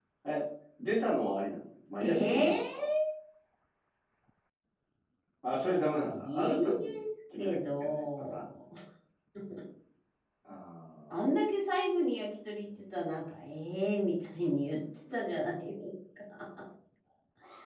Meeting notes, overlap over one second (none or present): present